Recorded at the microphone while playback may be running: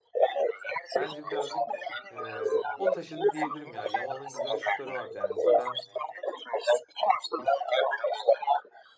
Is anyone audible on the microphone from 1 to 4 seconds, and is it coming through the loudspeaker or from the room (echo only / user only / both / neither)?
both